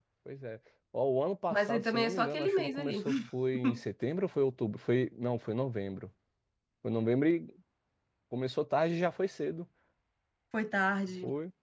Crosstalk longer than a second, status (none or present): present